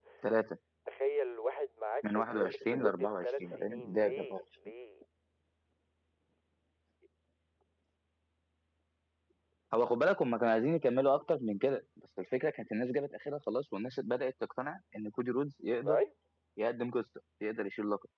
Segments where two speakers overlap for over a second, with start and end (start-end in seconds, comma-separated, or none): 2.0-4.4